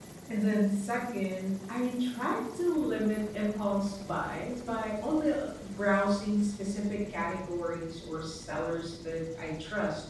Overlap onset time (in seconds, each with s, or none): none